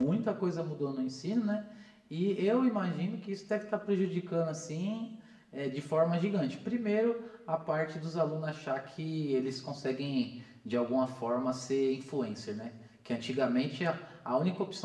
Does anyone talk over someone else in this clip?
No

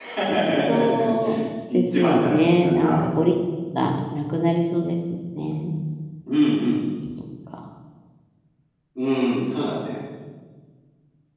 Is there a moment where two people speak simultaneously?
Yes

